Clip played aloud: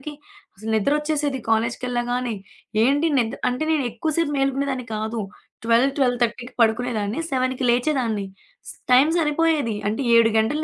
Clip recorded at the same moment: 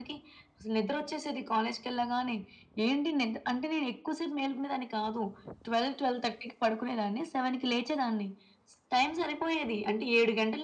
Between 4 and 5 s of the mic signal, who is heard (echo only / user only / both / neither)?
echo only